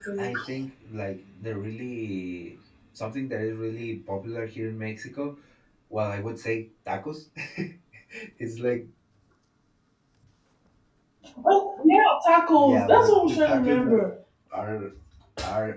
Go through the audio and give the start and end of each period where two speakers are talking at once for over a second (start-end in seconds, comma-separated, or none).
12.5-14.0